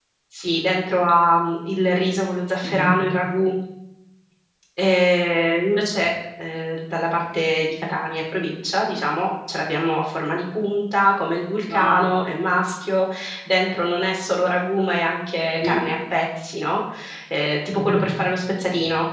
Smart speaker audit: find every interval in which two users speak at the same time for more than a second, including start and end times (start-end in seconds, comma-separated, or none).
none